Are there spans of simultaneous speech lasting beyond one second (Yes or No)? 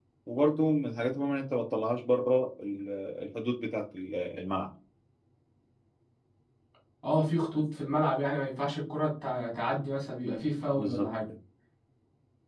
No